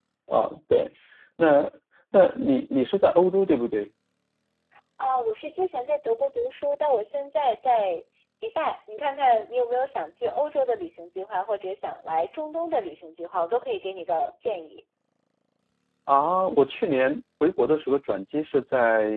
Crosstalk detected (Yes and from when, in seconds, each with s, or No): No